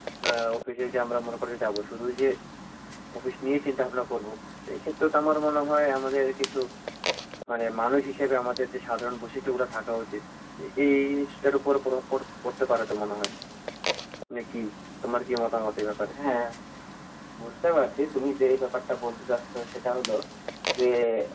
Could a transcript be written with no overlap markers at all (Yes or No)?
Yes